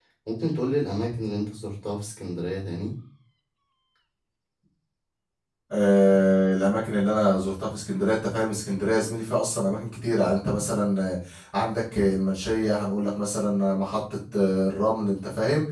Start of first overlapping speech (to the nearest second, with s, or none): none